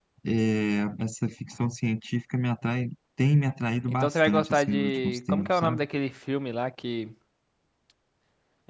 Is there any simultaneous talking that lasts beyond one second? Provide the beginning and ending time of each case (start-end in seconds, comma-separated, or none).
3.9-5.8